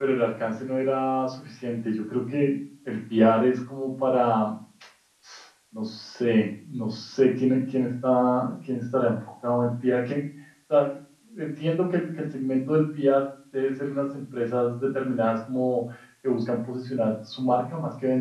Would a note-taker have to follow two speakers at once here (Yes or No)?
No